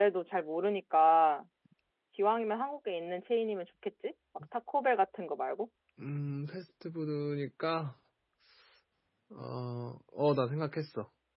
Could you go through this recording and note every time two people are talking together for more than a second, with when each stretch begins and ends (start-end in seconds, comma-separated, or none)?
none